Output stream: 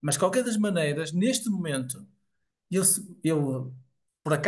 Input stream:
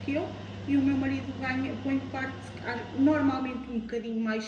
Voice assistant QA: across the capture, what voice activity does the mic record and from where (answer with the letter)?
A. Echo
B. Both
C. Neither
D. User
D